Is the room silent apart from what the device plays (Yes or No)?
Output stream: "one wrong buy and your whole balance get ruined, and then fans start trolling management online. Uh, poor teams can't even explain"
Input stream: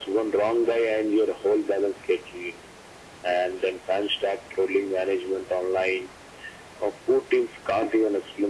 Yes